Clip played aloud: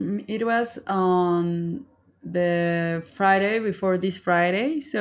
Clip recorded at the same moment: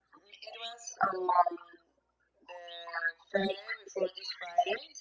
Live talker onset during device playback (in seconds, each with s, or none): none